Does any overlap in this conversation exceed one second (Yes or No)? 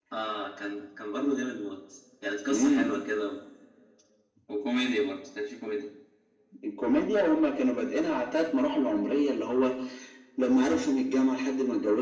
No